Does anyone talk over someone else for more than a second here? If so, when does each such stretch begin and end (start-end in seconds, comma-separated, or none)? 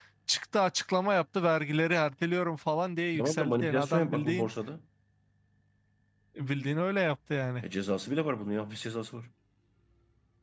3.2-4.5